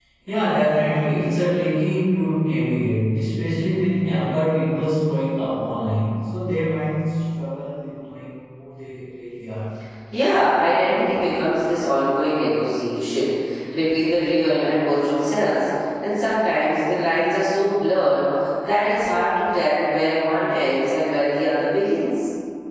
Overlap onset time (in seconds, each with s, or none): none